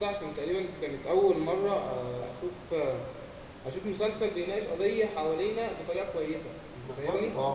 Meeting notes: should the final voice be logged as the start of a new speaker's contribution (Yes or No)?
Yes